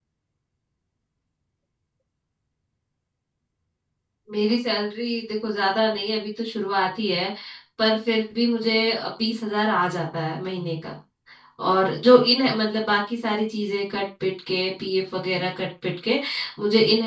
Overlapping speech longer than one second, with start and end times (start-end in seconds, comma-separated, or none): none